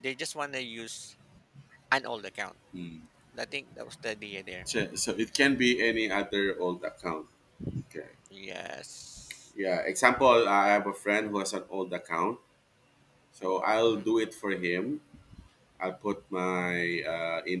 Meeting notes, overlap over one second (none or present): none